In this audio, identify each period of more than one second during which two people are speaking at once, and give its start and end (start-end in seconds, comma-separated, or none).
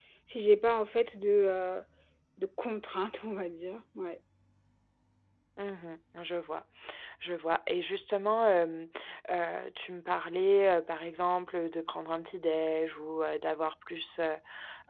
none